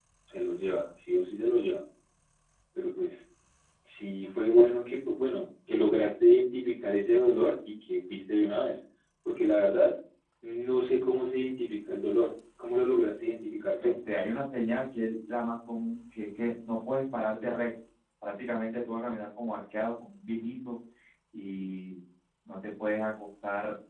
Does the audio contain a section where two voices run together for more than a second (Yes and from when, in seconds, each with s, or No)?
No